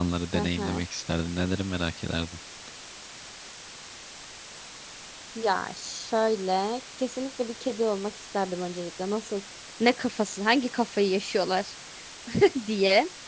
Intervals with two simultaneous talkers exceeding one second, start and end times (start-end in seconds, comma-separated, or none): none